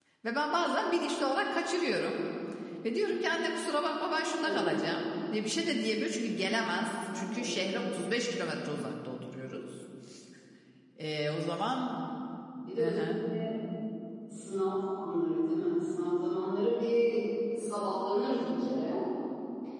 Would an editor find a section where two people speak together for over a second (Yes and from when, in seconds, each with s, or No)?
No